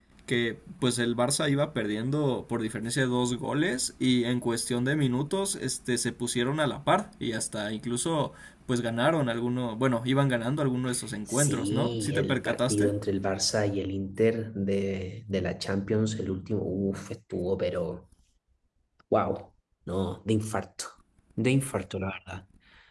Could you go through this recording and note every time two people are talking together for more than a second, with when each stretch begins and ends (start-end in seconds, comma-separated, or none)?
11.3-12.9